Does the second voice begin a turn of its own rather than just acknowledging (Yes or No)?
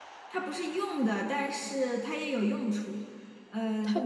No